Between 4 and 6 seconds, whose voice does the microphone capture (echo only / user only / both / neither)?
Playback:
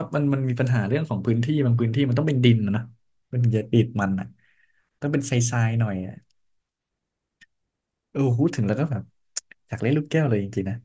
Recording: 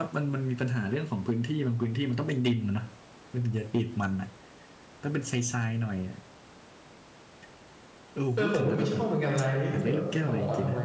echo only